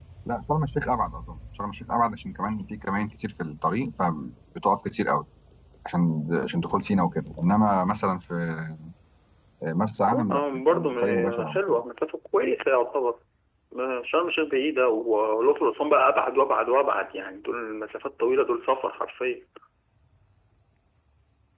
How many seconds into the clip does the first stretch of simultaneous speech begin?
10.3 s

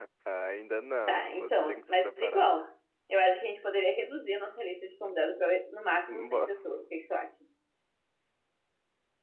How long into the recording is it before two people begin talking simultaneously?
1.1 s

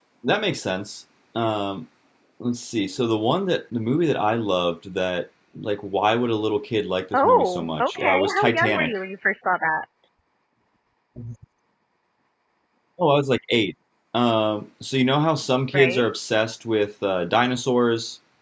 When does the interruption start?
7.1 s

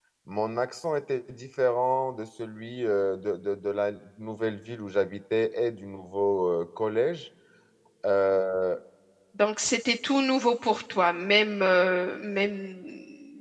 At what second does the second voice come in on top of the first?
none

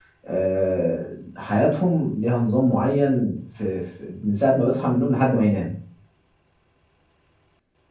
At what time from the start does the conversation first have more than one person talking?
none

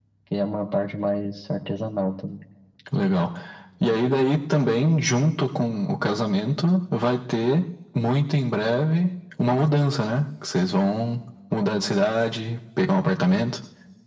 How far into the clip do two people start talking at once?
none

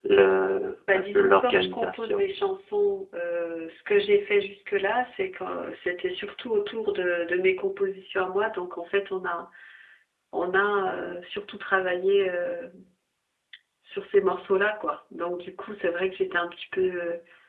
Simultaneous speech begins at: 0.9 s

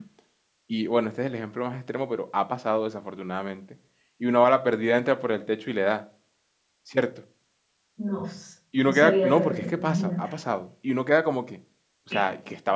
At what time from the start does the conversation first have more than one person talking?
8.8 s

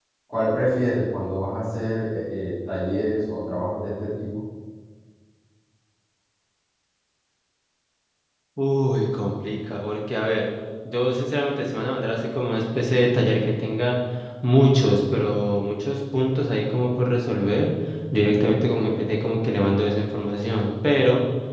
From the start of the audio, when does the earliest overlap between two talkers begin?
none

